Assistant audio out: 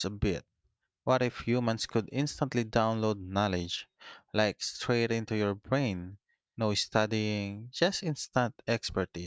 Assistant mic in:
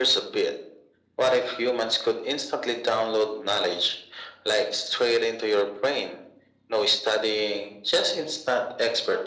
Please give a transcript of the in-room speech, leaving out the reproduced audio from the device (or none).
none